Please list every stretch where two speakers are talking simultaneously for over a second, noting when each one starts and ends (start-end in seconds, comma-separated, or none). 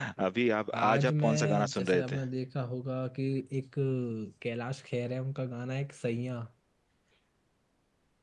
0.7-2.2